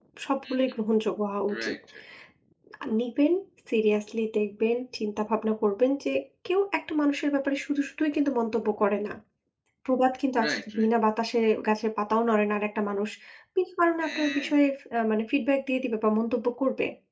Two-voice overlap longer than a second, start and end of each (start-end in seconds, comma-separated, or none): none